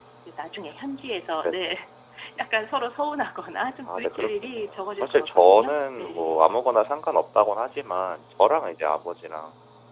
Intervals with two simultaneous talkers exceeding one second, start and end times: 3.8-6.5

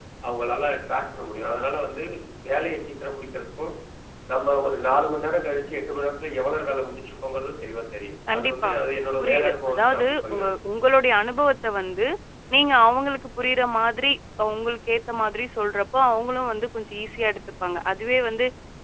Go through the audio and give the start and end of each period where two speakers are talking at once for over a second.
9.2-10.5

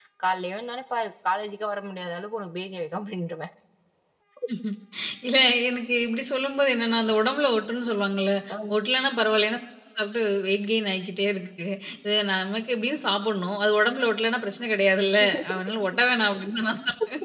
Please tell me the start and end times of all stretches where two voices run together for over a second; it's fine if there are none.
none

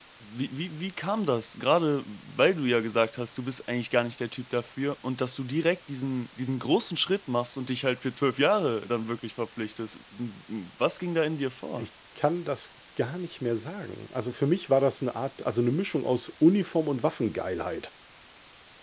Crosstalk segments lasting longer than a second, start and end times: none

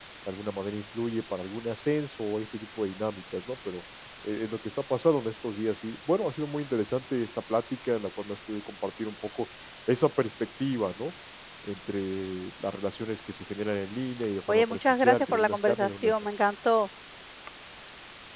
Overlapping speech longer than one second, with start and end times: 14.5-16.1

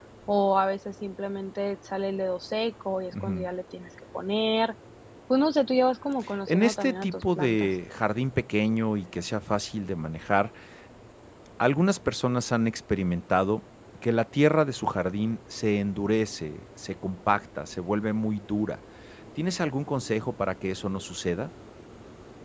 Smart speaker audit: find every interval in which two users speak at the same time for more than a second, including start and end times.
6.5-7.7

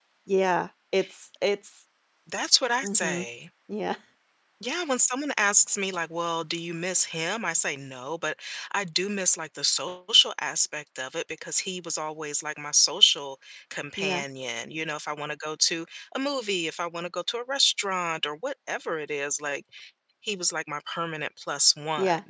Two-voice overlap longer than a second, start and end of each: none

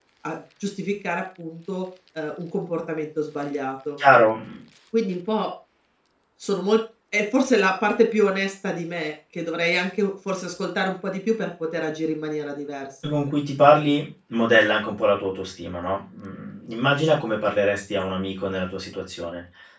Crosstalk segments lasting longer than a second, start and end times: none

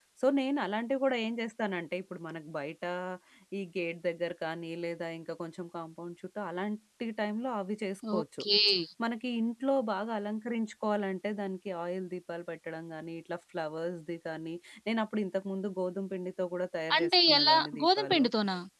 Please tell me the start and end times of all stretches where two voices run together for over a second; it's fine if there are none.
17.0-18.2

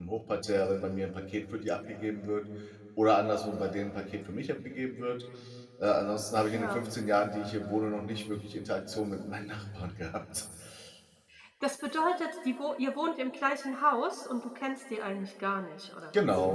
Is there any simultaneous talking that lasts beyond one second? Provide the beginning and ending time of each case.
none

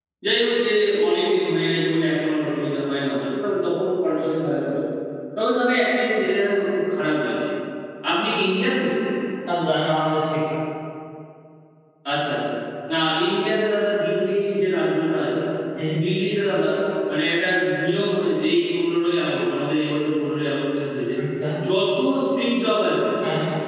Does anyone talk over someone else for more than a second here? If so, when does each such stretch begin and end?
none

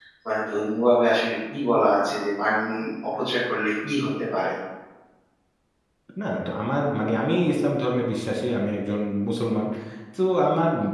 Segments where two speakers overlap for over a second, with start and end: none

